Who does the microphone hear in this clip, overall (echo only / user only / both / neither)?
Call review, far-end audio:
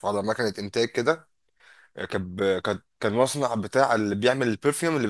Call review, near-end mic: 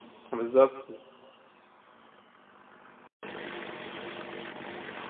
user only